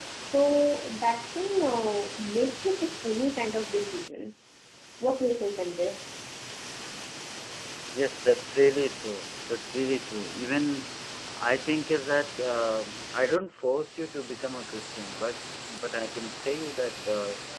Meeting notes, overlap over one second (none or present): none